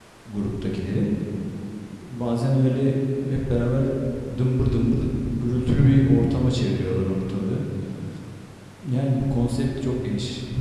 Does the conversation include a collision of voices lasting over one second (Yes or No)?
No